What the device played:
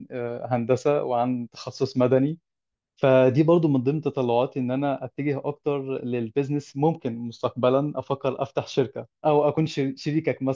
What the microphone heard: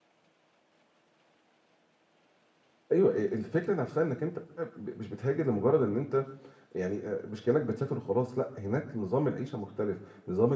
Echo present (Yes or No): No